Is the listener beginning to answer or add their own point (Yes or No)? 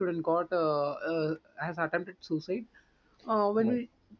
No